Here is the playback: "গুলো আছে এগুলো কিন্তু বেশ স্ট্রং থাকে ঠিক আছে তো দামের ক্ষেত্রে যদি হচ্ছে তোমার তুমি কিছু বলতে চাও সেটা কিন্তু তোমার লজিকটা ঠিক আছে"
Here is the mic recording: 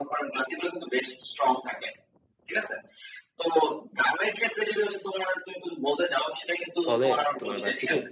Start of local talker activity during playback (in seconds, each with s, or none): 6.9 s